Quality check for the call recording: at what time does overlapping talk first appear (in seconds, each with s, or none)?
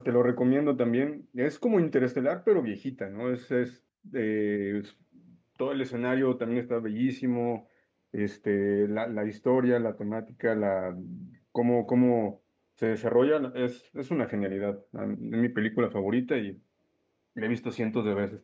none